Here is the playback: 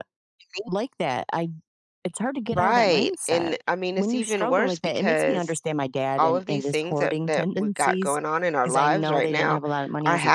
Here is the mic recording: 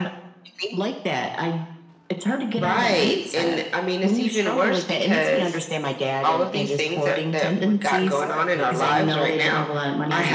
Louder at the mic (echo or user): echo